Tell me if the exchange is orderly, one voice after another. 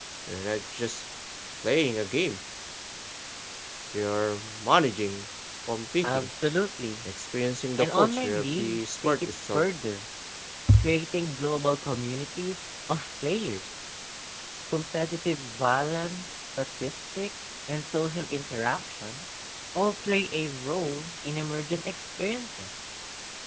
No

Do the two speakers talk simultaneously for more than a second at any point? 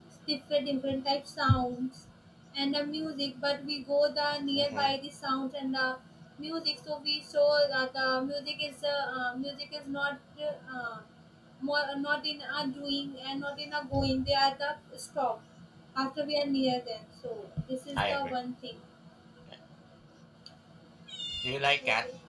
No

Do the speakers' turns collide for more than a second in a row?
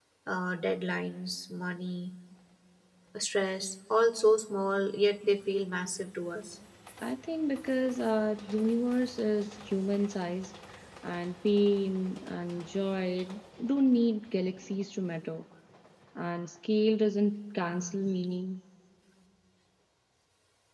No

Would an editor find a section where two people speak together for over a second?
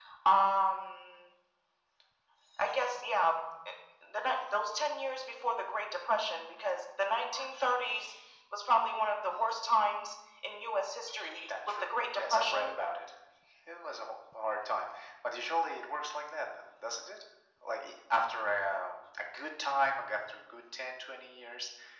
Yes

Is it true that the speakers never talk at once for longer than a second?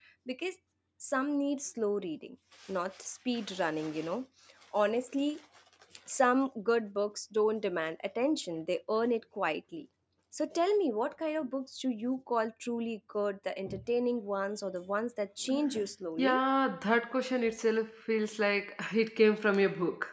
Yes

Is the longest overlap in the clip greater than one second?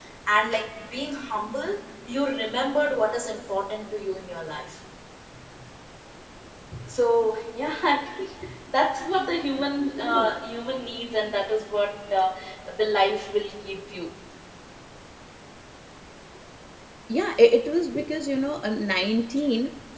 No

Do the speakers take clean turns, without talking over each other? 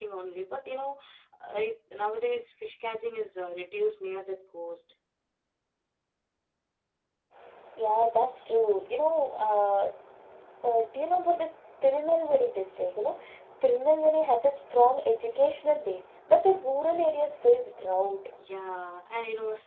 Yes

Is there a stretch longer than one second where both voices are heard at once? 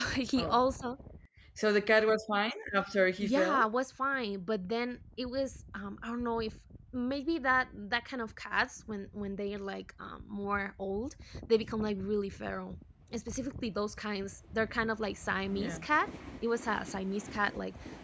No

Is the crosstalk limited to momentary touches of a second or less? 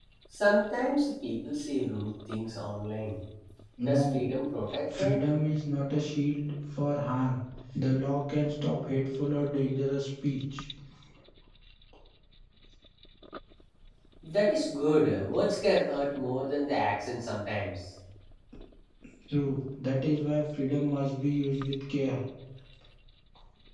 Yes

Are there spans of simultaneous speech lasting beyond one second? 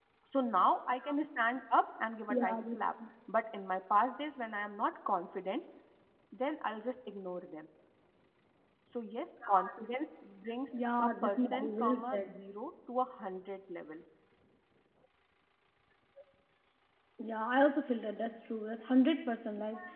Yes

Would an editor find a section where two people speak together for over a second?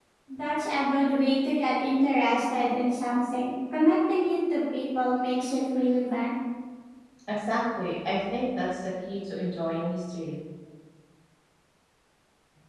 No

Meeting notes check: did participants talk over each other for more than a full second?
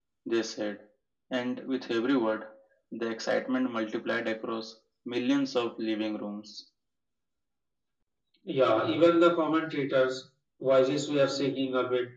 No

